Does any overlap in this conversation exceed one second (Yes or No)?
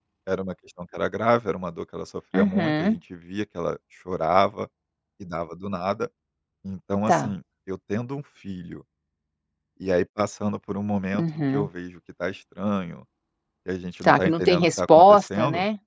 Yes